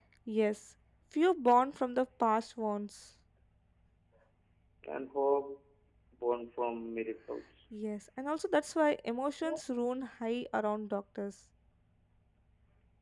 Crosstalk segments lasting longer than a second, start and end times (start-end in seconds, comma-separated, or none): none